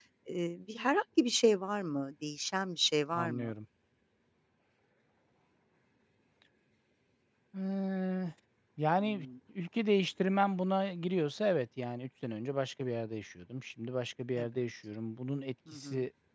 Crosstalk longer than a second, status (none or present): none